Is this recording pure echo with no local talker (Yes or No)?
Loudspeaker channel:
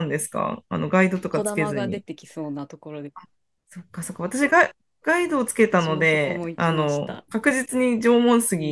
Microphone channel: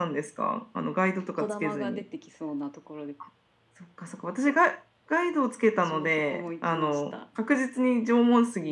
Yes